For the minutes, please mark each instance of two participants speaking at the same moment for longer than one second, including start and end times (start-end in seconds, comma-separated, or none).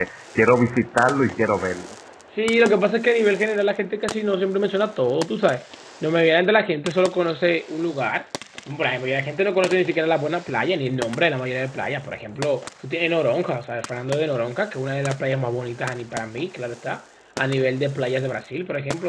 none